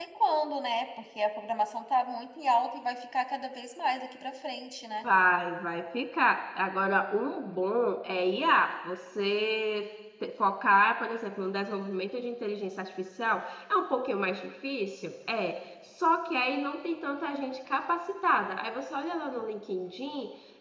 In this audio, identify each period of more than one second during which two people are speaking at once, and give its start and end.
none

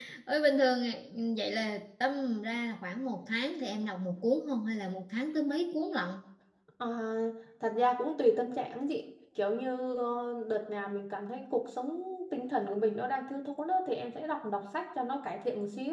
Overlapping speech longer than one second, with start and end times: none

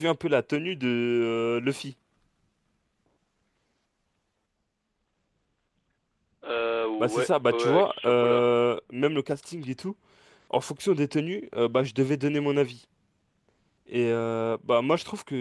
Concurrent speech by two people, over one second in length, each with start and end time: 7.0-8.5

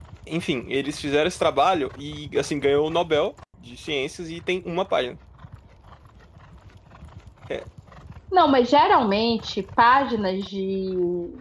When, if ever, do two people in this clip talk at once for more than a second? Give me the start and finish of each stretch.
none

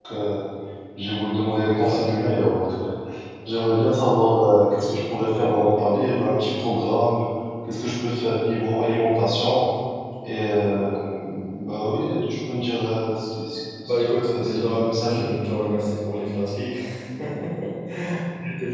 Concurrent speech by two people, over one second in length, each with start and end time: 13.8-15.3

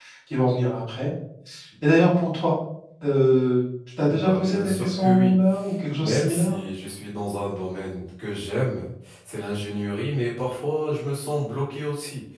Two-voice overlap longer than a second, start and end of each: 4.1-5.3

